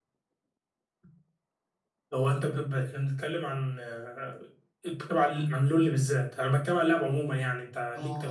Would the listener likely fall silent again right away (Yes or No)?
No